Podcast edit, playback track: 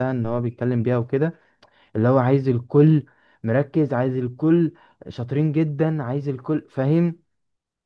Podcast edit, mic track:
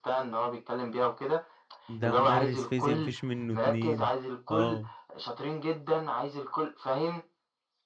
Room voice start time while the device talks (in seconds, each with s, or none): 1.9 s